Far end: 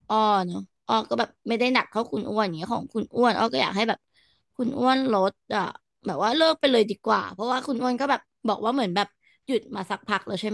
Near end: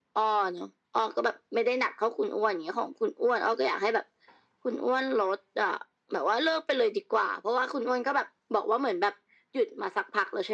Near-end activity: none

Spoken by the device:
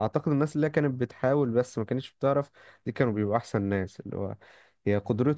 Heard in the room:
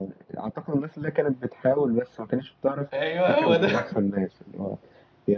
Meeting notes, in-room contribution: present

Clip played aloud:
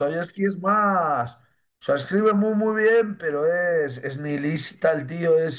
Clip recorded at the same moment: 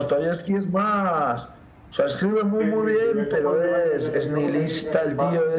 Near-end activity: present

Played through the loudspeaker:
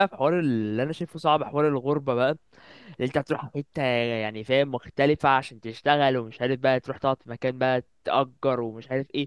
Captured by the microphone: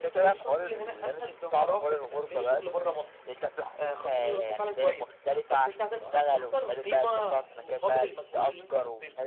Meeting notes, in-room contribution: present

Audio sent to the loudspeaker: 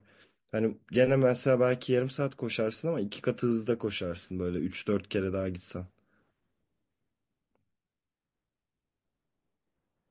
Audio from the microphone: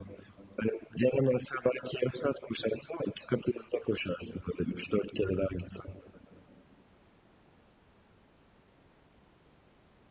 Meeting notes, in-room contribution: none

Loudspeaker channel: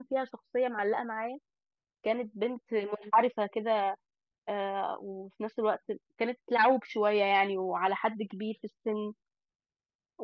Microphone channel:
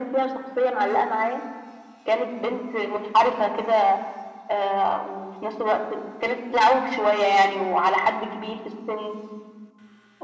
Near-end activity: none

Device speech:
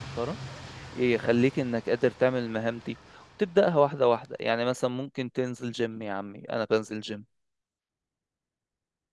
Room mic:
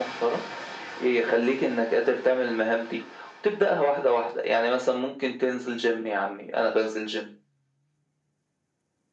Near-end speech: none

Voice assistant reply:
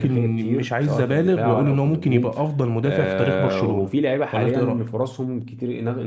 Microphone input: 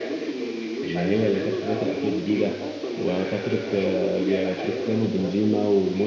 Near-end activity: present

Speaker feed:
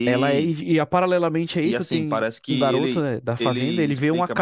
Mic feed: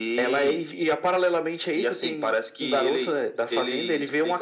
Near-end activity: none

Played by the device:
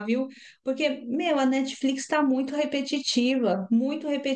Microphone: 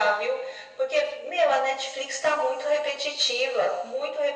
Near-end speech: none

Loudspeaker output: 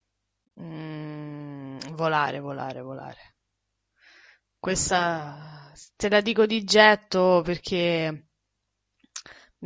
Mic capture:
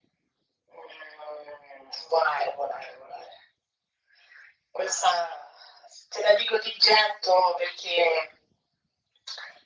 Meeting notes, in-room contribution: none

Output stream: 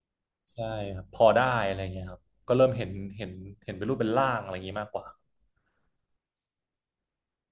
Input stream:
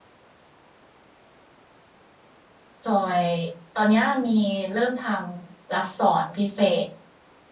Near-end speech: present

